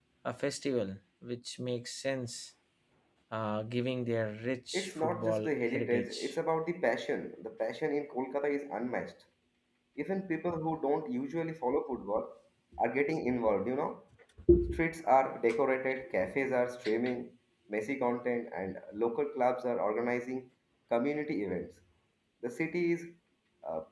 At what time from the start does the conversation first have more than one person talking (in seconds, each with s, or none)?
4.7 s